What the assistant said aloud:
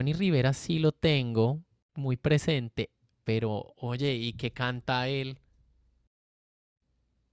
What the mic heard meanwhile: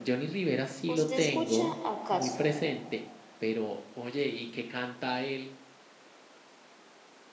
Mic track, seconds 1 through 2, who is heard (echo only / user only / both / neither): both